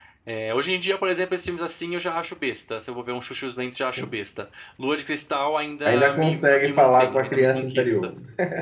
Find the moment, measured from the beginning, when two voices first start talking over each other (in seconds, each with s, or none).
5.8 s